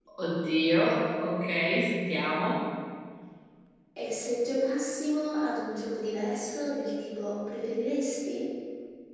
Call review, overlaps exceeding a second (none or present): none